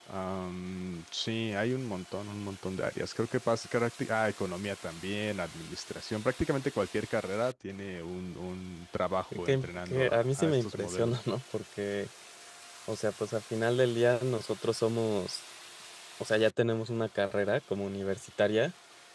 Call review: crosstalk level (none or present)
present